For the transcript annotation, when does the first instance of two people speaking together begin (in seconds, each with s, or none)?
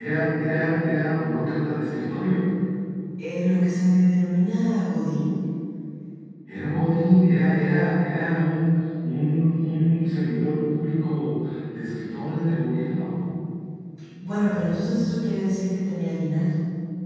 none